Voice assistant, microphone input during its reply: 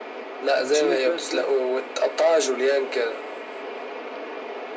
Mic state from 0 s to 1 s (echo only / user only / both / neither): both